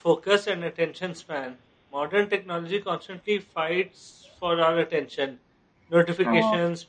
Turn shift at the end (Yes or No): No